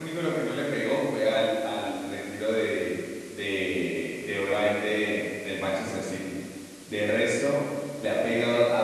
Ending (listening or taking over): listening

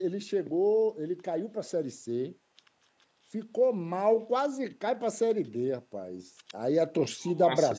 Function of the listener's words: listening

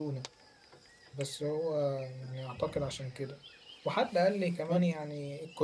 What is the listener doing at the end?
listening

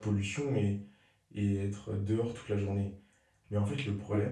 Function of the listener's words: listening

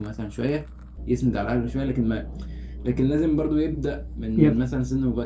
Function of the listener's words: listening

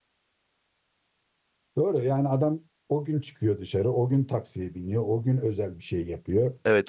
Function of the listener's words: taking over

